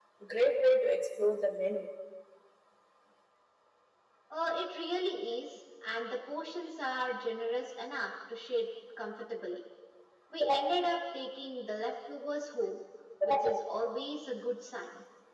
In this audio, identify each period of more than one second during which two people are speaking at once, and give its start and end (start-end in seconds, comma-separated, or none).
none